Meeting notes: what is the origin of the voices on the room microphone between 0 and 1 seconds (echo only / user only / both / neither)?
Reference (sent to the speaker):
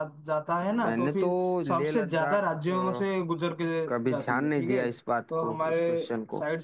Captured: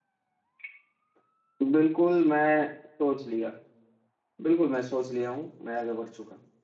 neither